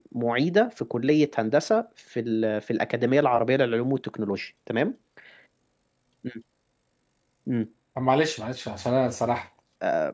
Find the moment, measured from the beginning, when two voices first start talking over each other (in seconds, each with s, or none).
none